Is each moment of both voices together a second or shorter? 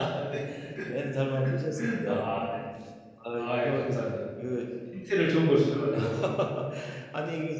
Yes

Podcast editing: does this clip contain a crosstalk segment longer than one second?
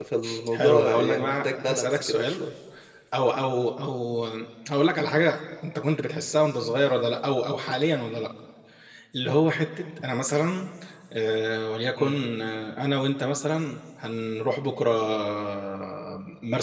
Yes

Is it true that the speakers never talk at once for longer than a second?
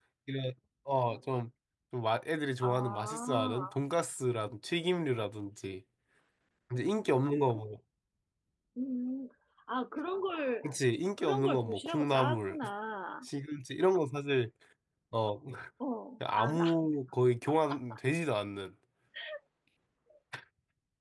No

